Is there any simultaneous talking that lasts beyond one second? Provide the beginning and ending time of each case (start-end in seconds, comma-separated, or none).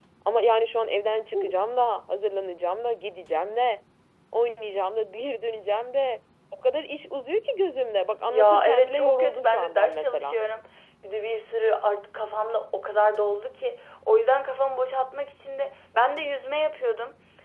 8.3-10.4